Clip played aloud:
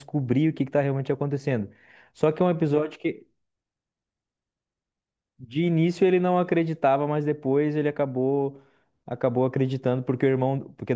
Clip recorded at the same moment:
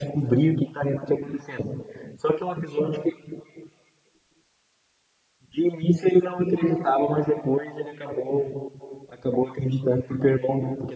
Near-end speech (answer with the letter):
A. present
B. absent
B